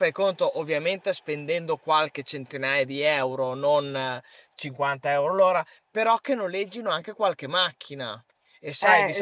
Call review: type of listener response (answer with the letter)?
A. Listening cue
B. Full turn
B